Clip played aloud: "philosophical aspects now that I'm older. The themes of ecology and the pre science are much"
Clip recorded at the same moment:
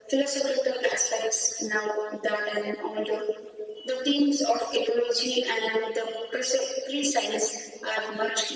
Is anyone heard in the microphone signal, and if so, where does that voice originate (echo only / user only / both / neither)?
echo only